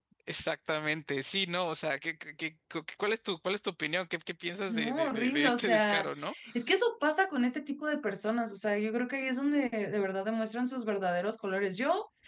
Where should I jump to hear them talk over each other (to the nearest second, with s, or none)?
5 s